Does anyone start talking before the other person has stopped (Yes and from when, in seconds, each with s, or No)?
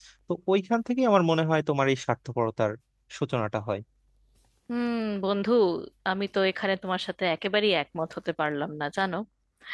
No